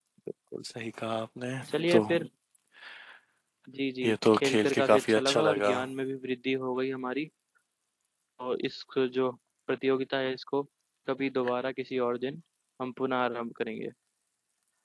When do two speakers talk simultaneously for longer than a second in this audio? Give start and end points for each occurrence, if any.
4.0-5.7

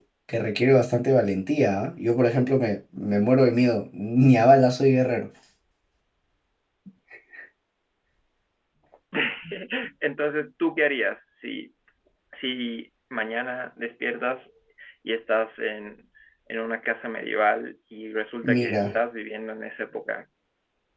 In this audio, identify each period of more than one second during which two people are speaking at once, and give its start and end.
none

